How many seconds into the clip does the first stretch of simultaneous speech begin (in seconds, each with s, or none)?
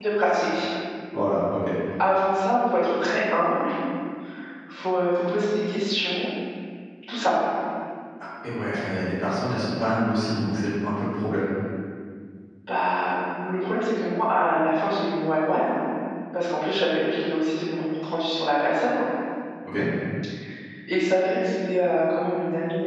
none